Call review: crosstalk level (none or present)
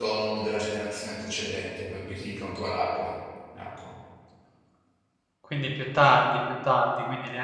none